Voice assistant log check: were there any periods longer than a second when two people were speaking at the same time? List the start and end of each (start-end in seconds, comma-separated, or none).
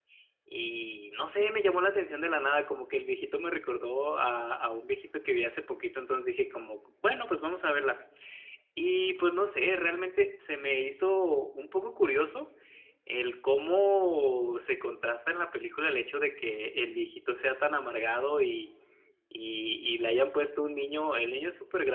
none